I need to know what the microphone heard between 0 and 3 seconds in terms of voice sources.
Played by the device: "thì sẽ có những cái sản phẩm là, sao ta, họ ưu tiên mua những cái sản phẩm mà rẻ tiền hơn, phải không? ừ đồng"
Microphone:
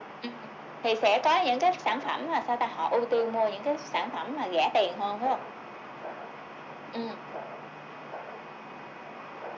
echo only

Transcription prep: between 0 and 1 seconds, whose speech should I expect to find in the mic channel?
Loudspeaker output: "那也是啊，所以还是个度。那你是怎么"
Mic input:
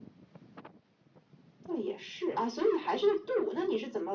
neither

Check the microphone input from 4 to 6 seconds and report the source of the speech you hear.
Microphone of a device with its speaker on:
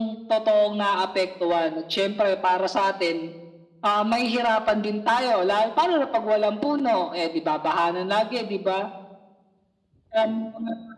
echo only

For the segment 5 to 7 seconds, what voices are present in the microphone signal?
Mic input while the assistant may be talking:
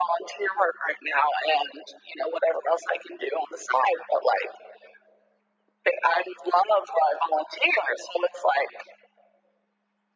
echo only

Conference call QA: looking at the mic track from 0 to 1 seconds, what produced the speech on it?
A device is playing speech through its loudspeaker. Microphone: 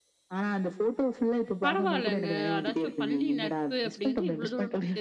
echo only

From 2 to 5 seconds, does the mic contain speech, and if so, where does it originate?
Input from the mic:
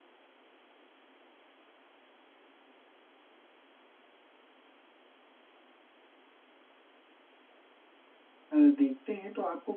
neither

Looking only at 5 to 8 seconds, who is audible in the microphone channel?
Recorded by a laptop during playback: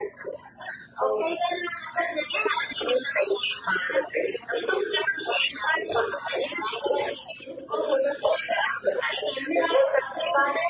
echo only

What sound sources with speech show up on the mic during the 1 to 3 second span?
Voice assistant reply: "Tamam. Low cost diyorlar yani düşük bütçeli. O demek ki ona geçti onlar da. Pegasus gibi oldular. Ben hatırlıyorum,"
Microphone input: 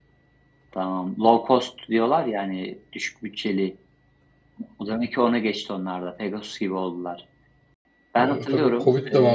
echo only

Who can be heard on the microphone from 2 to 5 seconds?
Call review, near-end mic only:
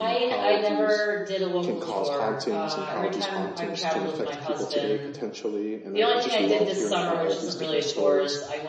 both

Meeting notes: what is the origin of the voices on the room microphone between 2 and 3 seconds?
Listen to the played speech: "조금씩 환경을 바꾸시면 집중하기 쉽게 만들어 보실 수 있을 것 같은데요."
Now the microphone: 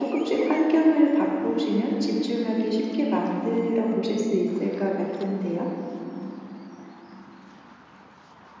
echo only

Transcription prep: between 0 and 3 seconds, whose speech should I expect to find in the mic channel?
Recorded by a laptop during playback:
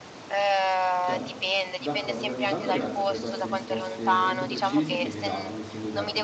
both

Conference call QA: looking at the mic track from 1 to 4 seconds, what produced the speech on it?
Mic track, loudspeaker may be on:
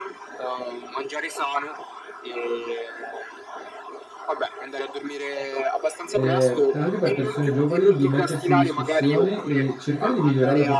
echo only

